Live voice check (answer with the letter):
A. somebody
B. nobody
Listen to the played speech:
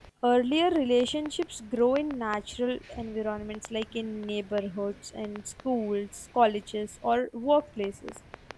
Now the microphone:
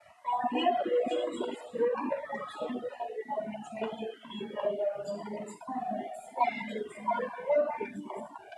B